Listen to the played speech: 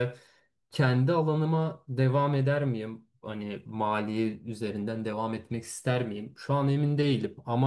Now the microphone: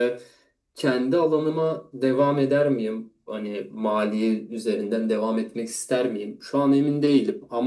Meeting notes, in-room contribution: none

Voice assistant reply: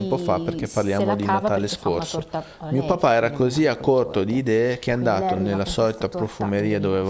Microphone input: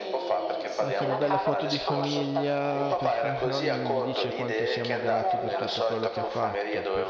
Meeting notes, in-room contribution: present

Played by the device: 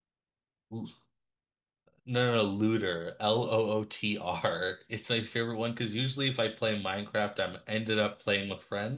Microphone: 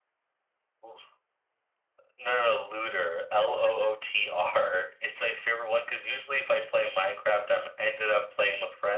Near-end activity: none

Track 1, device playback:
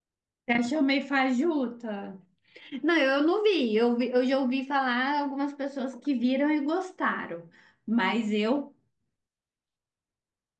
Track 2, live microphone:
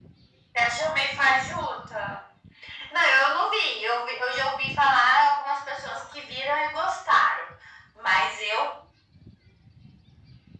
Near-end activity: none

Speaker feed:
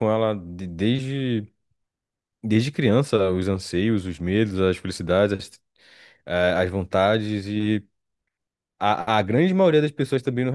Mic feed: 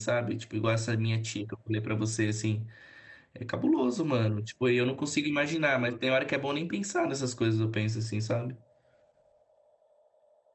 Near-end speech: present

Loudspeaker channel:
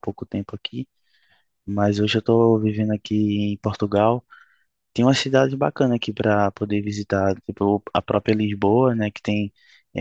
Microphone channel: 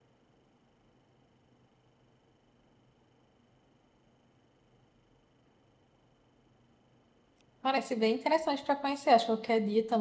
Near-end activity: present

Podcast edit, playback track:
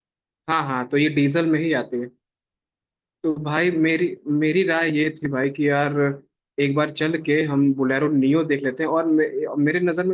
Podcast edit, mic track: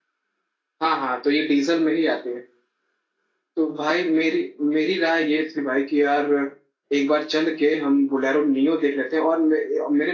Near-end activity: none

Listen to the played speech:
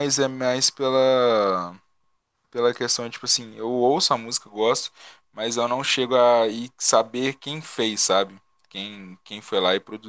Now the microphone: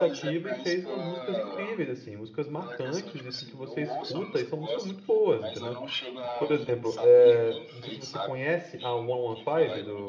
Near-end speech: present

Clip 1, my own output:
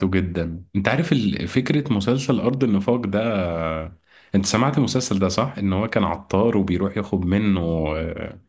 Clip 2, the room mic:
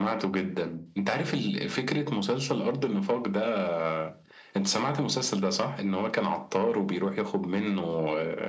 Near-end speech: none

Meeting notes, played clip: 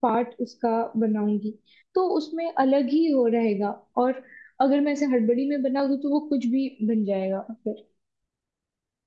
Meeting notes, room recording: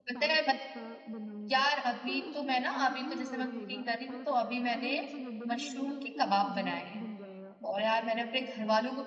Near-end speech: present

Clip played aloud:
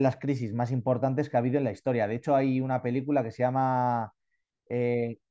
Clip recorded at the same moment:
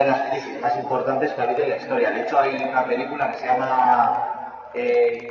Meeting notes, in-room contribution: none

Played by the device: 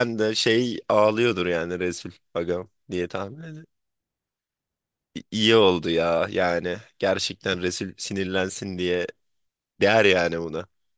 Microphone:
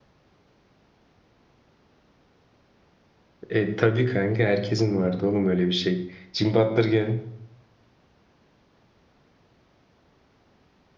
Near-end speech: present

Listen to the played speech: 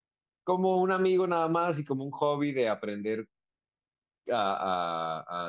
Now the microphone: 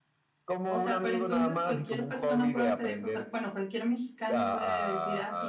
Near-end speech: present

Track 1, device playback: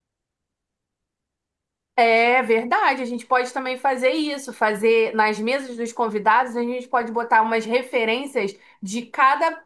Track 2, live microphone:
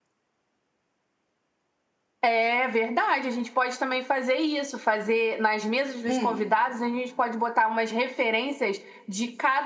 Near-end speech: present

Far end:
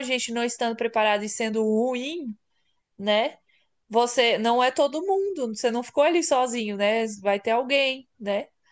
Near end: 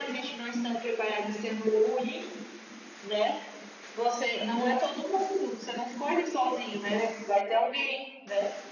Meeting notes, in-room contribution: none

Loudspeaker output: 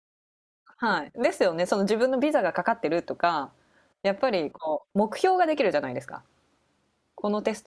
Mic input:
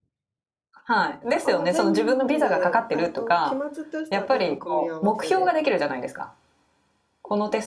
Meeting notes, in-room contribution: present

